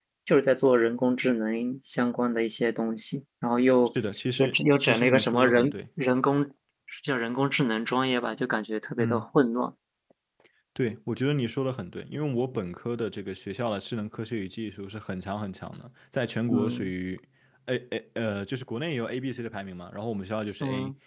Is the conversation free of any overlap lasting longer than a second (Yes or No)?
No